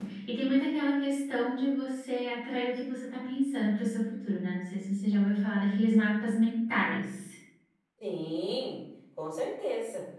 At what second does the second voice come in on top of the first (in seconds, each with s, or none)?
none